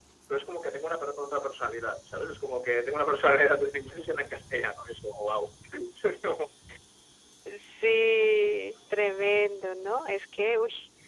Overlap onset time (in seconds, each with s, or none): none